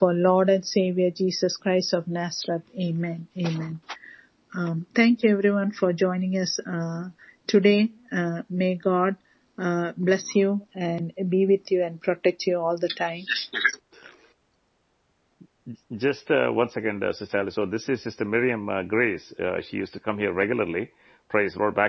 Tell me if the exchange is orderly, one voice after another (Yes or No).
Yes